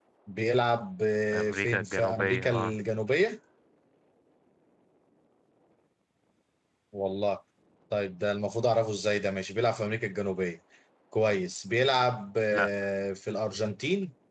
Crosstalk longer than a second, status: present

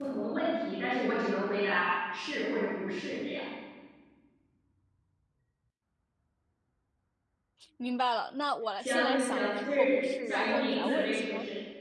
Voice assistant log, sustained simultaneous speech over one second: present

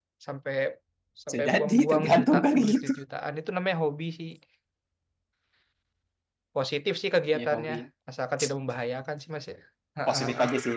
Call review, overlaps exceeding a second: present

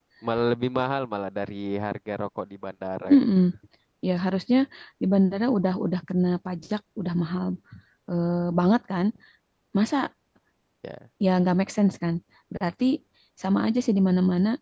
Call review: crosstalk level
none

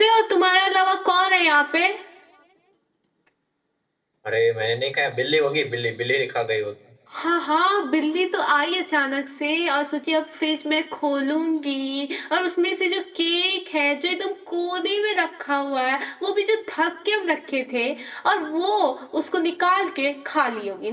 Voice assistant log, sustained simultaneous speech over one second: none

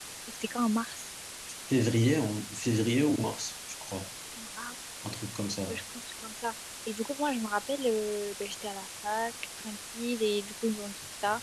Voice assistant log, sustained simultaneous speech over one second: none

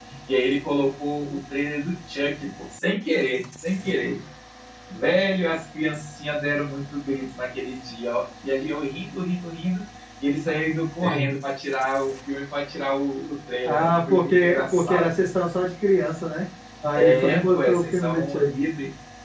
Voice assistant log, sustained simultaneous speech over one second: present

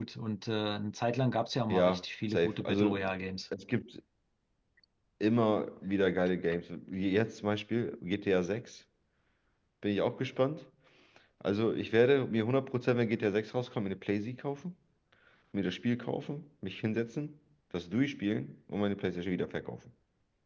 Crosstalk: present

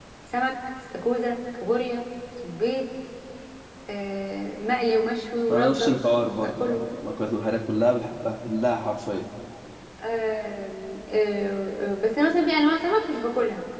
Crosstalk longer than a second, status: none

